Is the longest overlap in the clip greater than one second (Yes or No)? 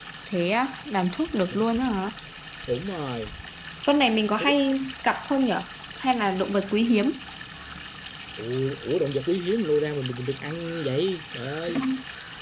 No